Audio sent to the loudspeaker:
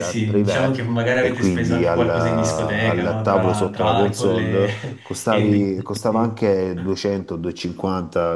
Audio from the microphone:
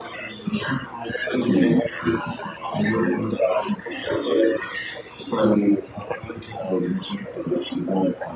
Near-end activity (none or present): none